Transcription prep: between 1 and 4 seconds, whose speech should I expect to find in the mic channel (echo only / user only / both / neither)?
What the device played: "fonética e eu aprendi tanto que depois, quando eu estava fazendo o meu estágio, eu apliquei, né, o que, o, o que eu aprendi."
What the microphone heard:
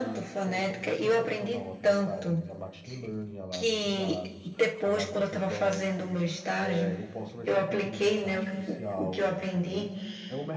both